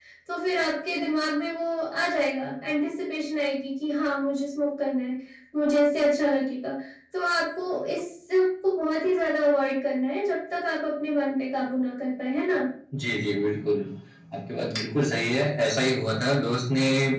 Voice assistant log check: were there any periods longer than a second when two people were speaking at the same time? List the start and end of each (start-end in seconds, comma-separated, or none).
none